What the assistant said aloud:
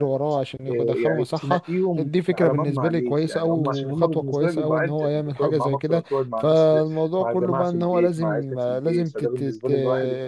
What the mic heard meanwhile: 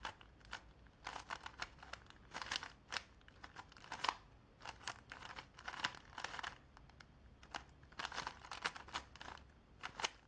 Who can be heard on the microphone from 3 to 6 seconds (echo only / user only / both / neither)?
neither